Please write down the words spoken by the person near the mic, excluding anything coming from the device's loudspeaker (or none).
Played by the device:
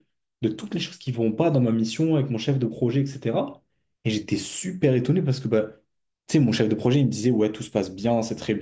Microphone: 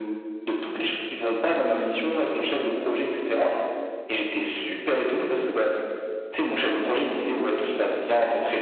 none